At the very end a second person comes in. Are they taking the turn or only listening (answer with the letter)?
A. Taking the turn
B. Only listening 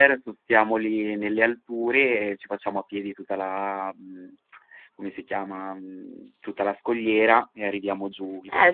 A